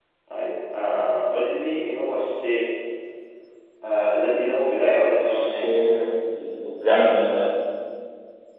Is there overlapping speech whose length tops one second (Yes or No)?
No